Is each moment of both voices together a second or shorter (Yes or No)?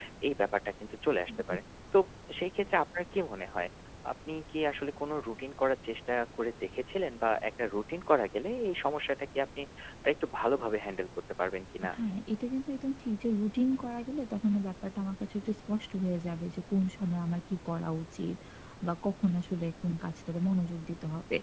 Yes